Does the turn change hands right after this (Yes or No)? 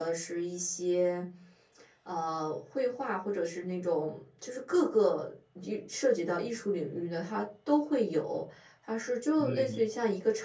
No